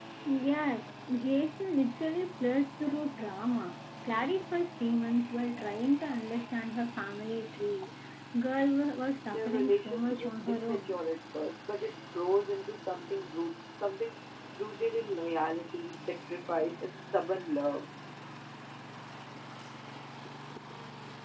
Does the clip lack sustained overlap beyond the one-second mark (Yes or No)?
No